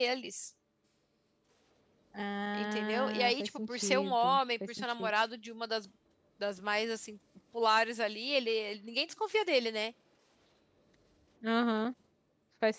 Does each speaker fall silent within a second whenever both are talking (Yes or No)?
No